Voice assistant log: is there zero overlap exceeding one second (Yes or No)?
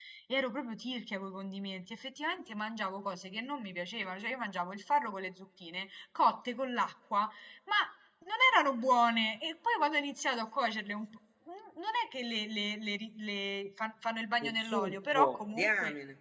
No